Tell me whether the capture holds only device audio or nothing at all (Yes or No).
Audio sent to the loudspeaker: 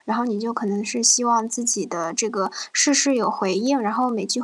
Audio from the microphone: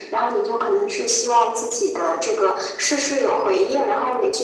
Yes